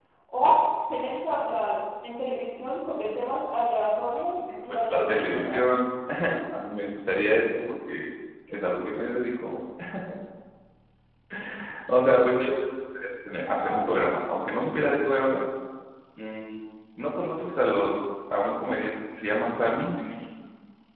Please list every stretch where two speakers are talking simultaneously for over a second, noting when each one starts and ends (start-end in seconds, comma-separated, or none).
4.4-5.8